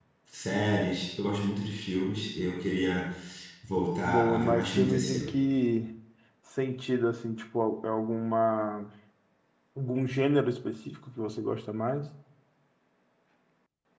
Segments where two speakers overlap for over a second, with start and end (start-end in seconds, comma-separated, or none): 4.1-5.4